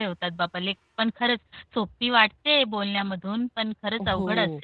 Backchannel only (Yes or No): No